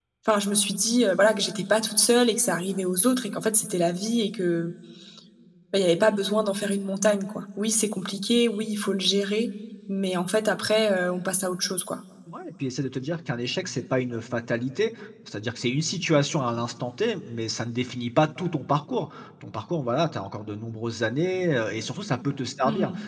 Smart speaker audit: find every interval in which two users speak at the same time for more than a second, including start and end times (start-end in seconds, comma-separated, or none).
none